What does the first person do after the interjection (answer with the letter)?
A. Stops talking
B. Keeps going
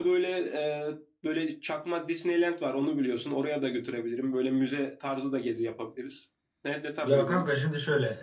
A